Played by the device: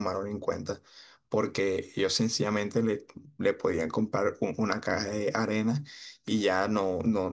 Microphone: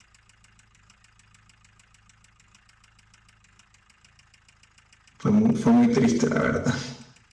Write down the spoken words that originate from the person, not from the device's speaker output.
fue muy, fue muy triste, la verdad.

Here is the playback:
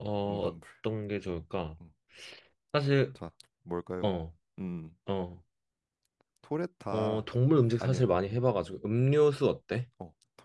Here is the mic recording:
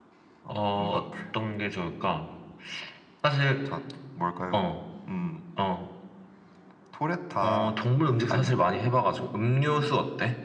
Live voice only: none

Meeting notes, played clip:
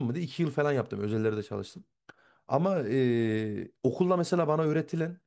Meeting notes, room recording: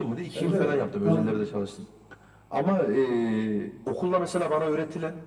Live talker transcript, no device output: Ben de tam

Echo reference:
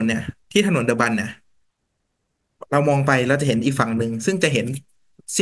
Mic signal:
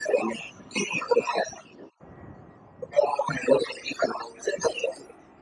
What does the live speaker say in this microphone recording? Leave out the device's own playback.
none

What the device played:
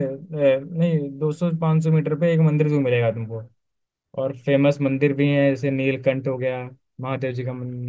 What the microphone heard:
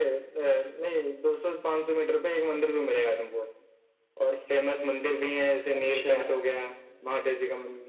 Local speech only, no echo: अच्छा

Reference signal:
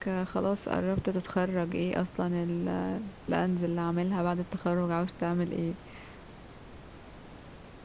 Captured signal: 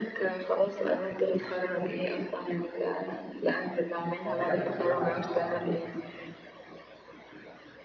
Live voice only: يعني نجح في كل حاجة اه

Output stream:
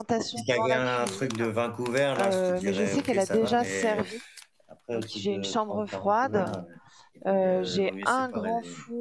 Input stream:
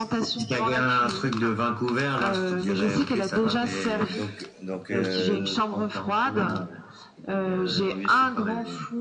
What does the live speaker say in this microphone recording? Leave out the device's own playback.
Donc, donc euh,

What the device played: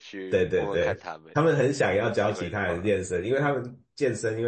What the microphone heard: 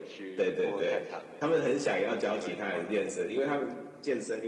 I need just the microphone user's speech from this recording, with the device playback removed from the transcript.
none

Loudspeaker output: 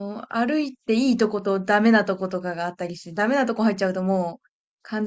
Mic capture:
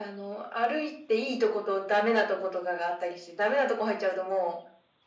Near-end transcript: none

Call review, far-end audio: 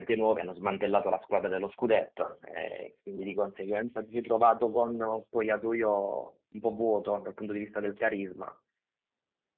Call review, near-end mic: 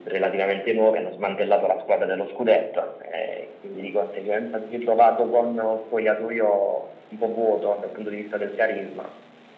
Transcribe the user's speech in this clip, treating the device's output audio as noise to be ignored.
none

